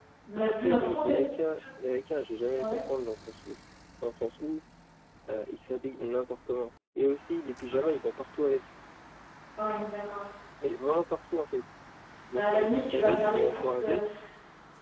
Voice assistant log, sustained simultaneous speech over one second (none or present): present